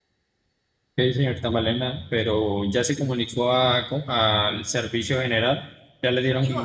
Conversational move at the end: taking over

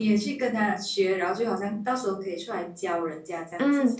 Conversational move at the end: taking over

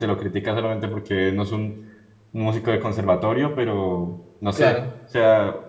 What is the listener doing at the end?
listening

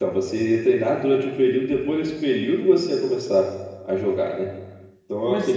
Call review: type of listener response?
listening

